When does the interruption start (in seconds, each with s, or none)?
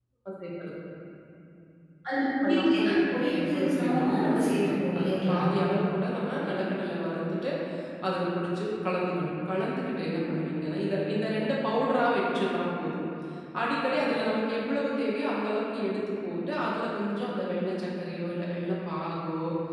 2.4 s